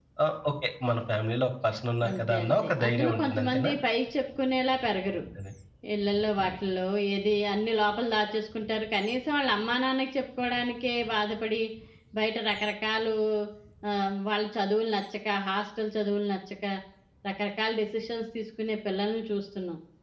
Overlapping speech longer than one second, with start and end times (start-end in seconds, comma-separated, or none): 2.1-3.7